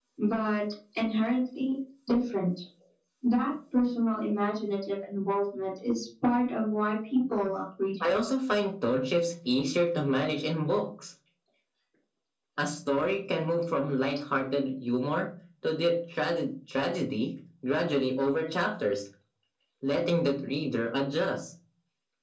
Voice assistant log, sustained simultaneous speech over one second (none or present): none